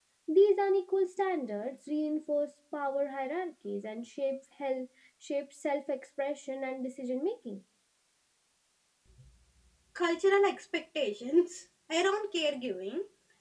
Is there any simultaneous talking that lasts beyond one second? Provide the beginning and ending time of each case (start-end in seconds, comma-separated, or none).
none